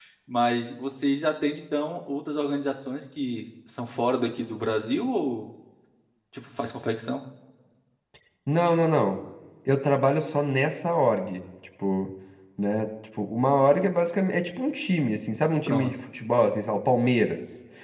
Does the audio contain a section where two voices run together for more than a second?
No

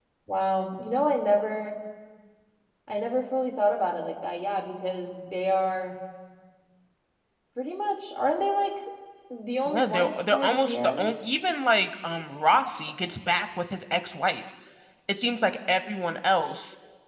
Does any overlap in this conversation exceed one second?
Yes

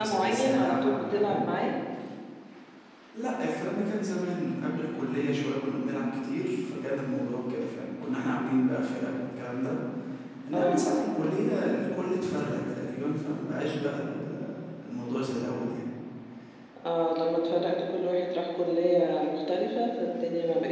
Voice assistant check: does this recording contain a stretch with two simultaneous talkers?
Yes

